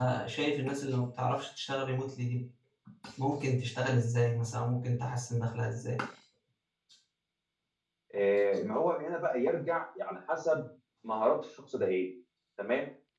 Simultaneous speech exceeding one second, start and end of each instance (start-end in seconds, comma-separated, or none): none